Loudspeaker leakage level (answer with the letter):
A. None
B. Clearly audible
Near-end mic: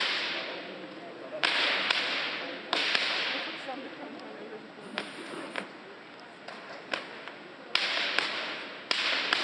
A